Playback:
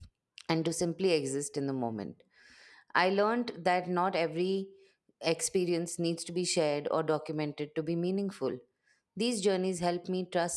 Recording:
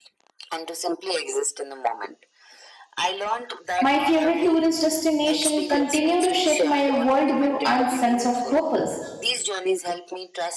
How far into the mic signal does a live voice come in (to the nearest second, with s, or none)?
4 s